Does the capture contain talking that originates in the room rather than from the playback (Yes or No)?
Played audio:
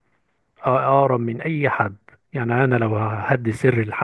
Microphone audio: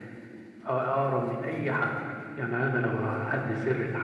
No